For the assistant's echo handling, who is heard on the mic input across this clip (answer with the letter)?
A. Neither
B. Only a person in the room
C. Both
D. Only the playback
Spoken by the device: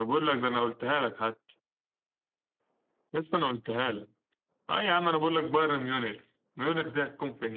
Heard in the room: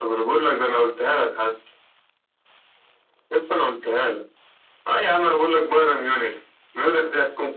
D